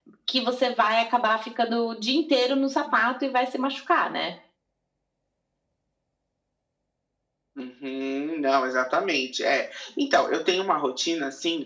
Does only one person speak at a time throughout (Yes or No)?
Yes